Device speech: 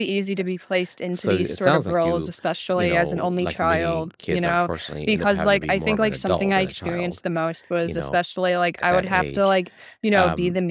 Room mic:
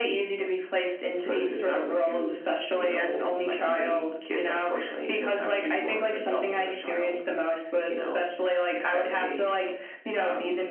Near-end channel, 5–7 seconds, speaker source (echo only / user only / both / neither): echo only